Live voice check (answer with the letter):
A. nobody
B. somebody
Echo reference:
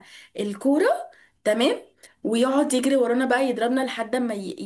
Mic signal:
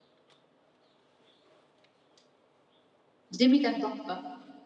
B